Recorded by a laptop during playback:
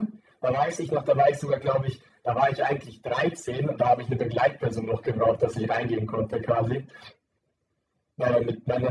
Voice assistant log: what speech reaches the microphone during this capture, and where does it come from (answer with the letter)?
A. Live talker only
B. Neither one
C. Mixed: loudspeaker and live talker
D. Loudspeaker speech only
D